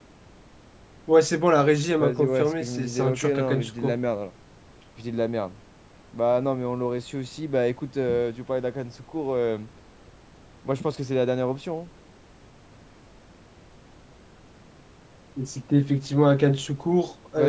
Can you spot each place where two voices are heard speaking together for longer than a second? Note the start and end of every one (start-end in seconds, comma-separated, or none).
2.0-4.0